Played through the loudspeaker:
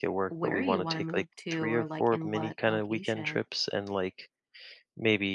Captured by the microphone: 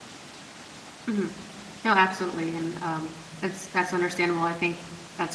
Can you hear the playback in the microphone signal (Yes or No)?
No